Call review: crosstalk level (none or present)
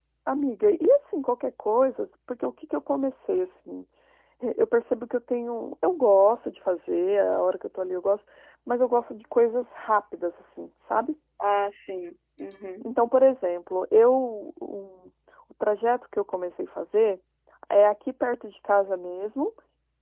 none